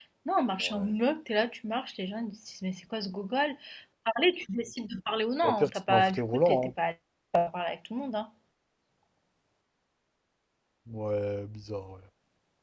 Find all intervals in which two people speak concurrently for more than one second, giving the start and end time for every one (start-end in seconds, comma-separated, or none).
5.4-6.7